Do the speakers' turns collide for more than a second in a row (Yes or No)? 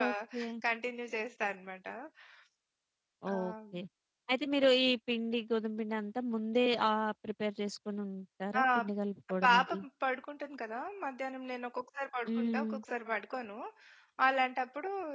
No